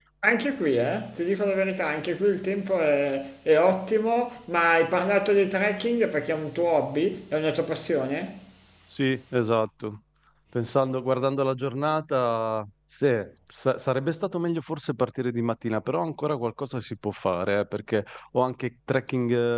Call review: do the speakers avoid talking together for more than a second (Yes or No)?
Yes